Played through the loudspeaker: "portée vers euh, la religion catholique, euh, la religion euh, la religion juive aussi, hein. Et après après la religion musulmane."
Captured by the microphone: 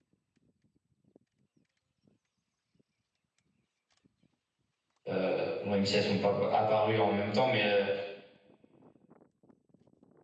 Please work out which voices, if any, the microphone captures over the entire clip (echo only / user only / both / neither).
user only